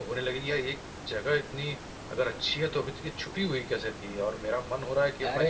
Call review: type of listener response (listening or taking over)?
taking over